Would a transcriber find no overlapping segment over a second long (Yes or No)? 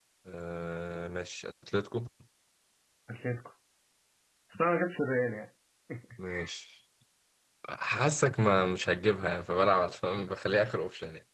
Yes